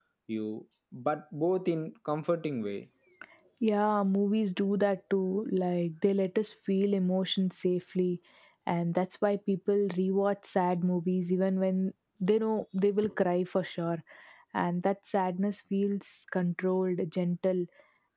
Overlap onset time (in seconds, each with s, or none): none